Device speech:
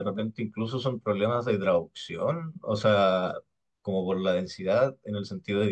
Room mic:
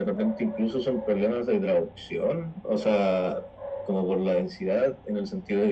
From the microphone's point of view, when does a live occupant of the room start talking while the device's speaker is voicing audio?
none

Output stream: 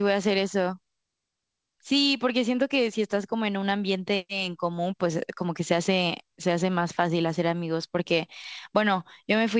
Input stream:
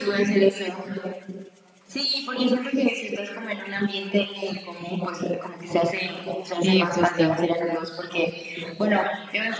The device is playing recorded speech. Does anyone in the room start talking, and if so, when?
6.6 s

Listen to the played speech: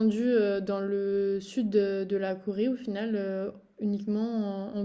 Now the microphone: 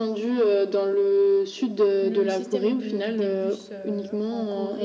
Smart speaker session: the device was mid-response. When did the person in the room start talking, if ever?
2.0 s

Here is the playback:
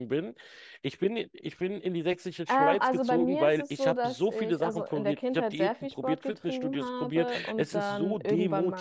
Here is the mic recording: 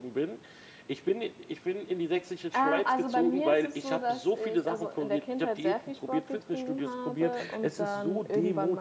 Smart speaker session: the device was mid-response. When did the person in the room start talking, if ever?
none

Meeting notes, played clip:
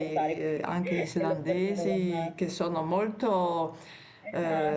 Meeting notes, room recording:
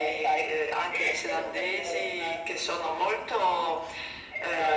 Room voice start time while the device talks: none

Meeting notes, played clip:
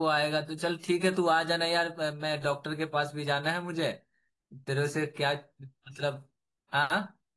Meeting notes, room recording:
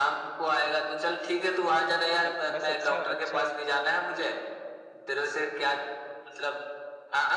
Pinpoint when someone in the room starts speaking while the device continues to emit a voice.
2.2 s

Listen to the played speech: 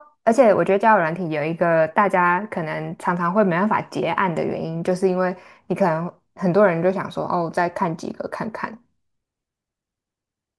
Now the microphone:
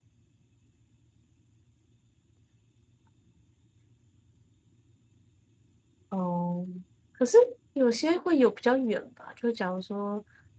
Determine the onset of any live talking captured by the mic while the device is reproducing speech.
6.1 s

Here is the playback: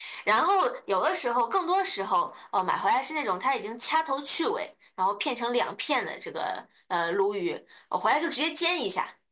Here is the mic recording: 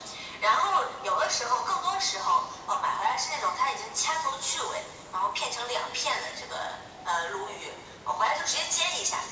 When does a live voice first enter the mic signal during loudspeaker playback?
none

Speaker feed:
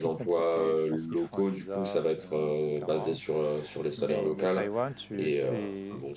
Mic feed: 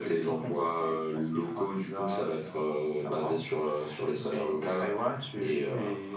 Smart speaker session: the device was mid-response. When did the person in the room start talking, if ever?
none

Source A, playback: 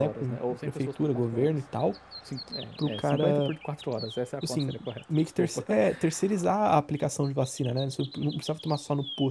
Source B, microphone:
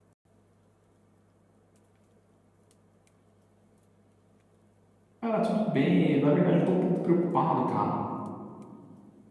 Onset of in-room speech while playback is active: 5.2 s

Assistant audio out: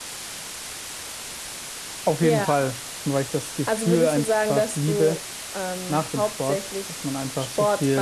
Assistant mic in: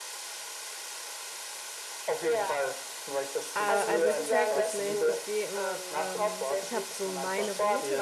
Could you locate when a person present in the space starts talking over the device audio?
3.5 s

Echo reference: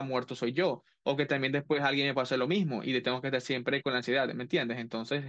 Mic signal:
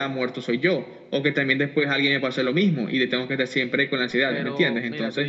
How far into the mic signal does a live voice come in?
4.2 s

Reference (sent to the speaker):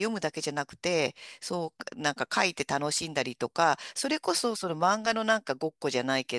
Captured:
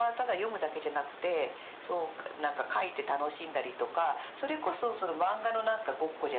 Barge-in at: none

